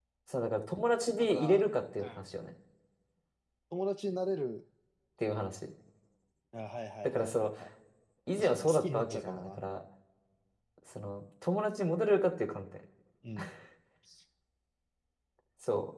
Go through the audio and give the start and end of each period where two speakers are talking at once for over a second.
8.4-9.6

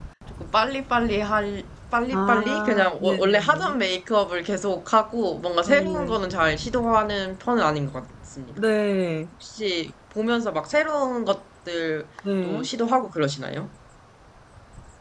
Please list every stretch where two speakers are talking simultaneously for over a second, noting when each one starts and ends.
2.1-3.8

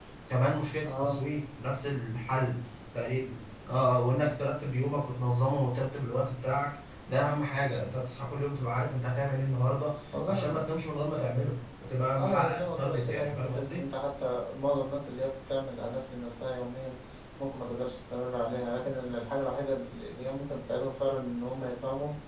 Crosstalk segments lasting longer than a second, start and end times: 12.2-13.8

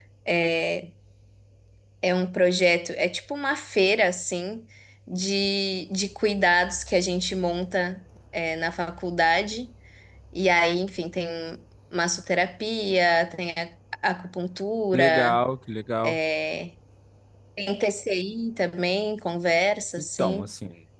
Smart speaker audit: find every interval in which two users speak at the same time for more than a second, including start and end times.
none

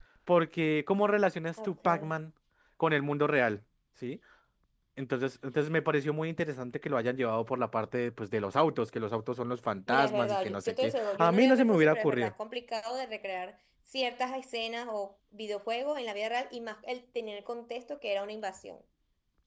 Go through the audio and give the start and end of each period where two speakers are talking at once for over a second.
9.9-12.3

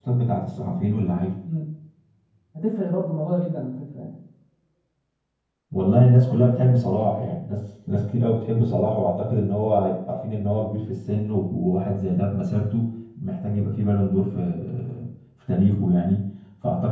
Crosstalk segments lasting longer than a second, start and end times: none

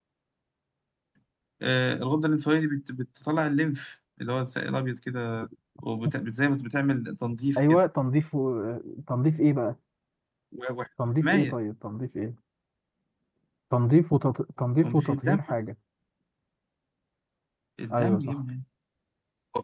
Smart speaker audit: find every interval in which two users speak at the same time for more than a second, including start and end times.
none

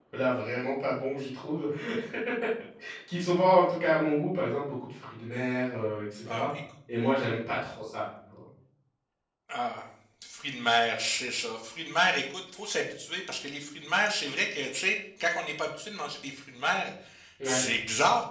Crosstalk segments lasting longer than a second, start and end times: none

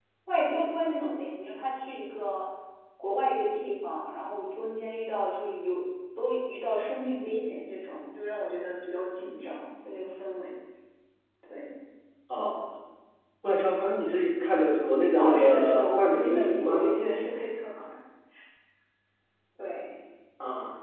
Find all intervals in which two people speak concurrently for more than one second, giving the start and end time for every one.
15.2-16.9

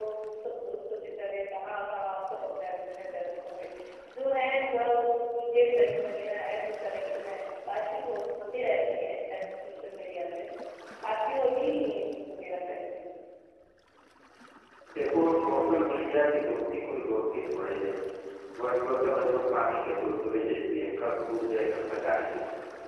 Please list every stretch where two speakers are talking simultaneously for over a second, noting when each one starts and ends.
none

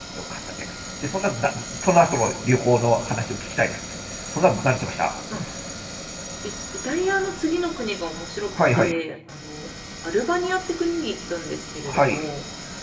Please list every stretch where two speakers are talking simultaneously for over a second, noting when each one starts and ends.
none

